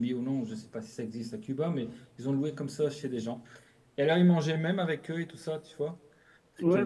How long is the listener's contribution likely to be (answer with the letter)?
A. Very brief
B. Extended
B